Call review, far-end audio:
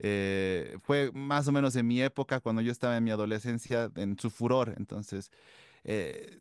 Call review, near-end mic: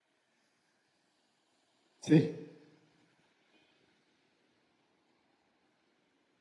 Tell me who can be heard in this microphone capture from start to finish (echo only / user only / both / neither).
user only